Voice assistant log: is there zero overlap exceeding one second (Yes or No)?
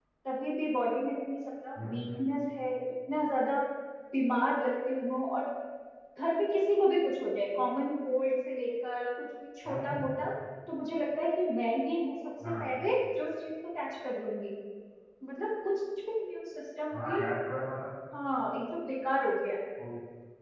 Yes